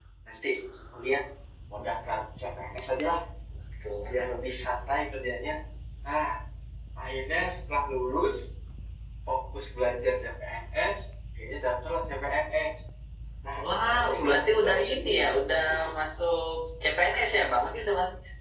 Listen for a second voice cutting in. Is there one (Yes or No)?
Yes